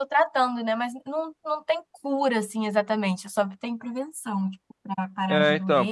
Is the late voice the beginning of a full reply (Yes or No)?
Yes